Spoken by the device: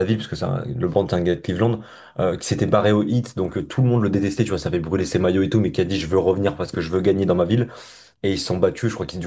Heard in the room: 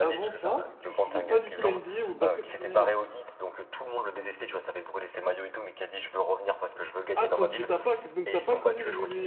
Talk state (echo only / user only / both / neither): both